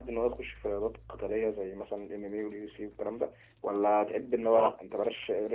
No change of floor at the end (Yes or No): Yes